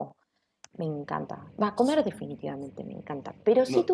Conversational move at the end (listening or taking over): listening